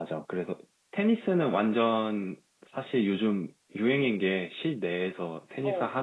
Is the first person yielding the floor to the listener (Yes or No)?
No